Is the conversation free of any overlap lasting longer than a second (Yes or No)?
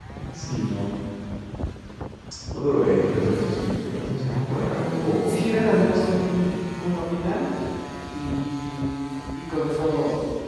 No